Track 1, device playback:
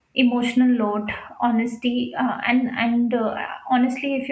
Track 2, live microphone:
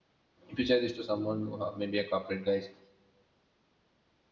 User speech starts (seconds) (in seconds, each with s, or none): 0.5 s